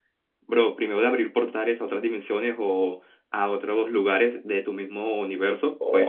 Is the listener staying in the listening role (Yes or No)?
No